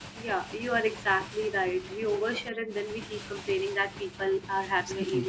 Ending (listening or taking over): listening